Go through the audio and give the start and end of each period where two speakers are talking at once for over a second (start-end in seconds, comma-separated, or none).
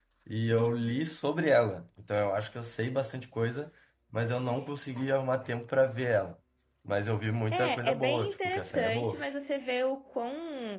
7.5-9.2